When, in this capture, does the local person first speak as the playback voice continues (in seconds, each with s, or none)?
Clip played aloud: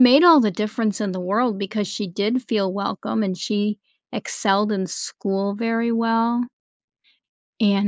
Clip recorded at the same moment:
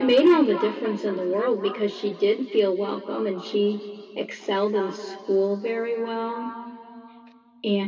none